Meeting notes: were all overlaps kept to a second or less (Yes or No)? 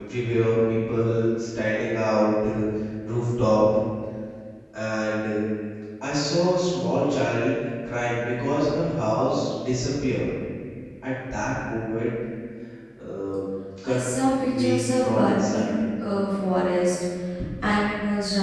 No